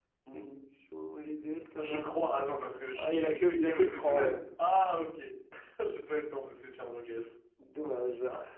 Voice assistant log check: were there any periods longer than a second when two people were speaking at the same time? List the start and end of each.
2.9-4.3

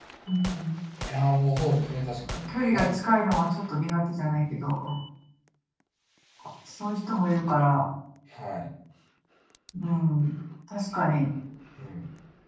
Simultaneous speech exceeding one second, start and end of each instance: none

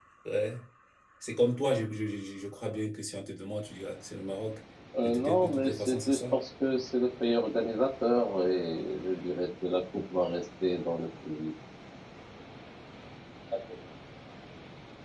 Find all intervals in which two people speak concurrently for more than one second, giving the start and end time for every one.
5.0-6.4

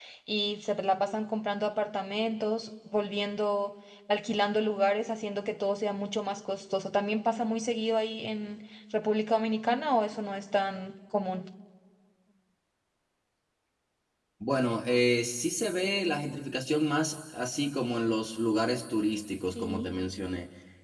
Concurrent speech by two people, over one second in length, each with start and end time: none

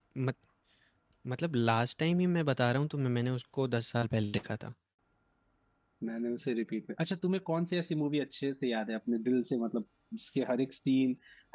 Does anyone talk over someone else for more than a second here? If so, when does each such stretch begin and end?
none

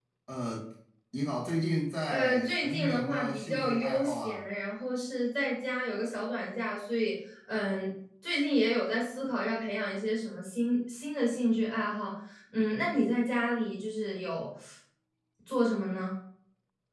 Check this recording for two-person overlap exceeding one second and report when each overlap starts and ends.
2.1-4.4

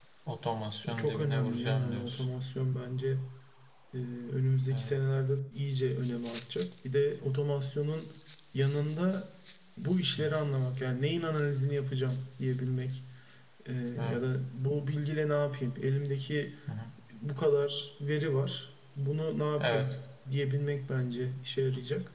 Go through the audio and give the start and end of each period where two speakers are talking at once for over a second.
0.9-2.2

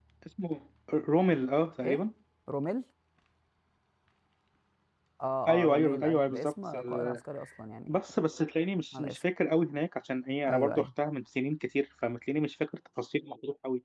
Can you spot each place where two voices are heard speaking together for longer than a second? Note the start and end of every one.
5.5-7.2

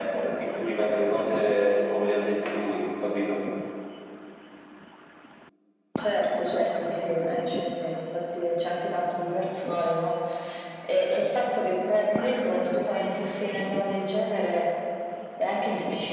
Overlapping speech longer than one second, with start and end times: none

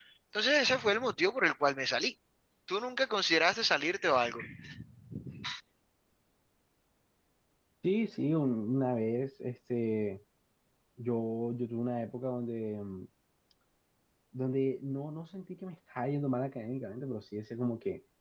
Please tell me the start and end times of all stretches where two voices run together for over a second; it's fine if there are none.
none

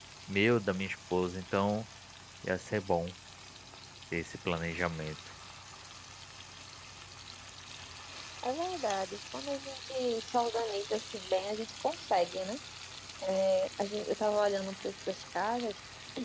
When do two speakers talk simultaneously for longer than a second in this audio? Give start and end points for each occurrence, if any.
none

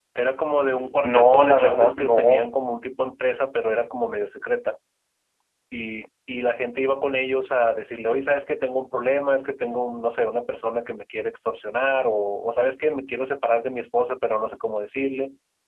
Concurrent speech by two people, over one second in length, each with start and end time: 1.0-2.5

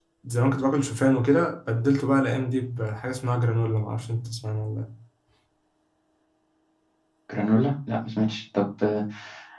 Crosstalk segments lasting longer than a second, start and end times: none

